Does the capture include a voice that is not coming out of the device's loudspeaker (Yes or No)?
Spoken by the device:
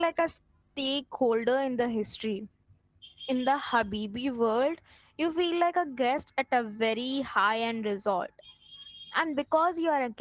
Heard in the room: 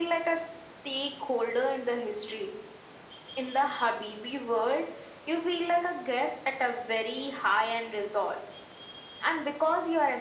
No